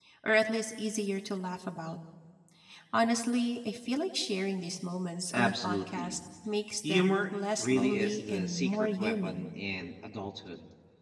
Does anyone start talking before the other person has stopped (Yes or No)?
Yes